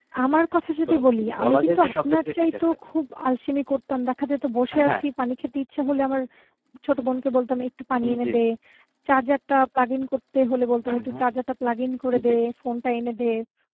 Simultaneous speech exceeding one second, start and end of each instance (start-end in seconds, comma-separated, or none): 1.4-2.7